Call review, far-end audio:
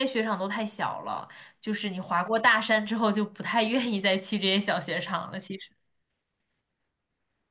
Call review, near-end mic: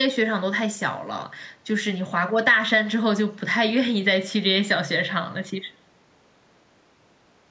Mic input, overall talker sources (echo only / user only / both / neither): echo only